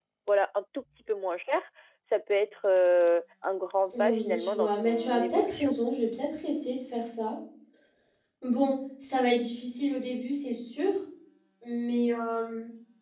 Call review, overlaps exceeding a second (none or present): present